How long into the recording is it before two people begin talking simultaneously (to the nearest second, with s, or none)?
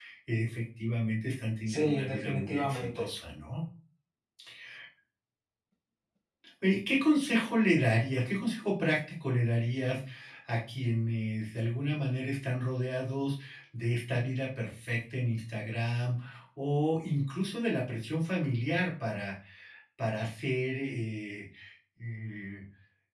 2 s